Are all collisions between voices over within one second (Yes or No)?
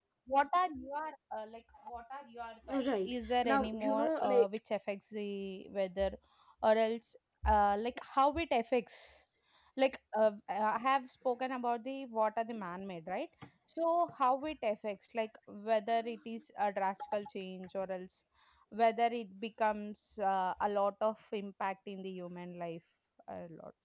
No